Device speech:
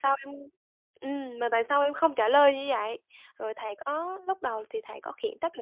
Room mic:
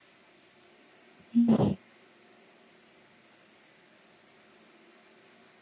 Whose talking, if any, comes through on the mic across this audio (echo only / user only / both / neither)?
user only